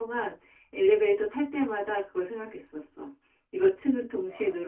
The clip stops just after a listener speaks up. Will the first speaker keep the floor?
Yes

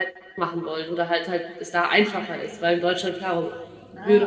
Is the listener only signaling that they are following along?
No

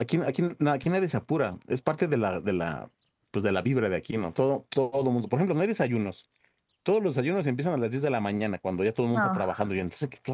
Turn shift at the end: No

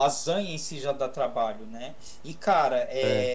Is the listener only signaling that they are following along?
Yes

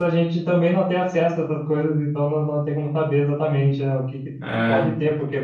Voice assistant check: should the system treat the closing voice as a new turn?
No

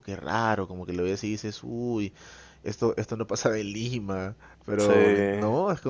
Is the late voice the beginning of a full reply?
No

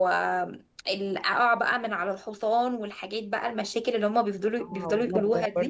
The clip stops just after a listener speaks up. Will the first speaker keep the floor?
No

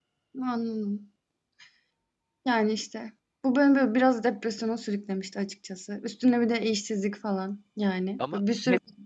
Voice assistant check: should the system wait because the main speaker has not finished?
Yes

